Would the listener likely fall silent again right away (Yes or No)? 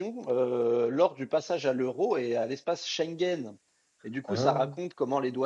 Yes